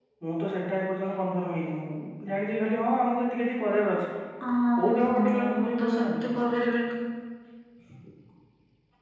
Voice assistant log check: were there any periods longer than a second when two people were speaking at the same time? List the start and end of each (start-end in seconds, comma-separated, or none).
4.8-6.3